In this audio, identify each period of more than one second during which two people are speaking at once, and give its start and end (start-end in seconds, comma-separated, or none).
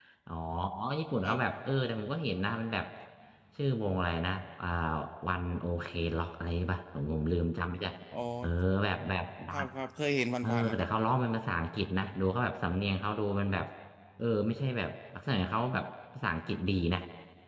none